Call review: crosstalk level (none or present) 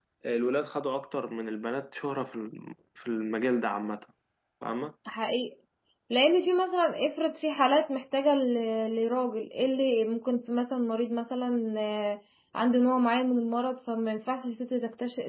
none